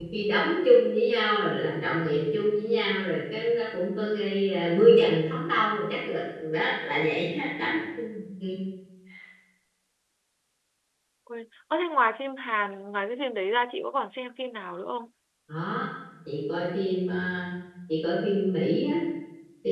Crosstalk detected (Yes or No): No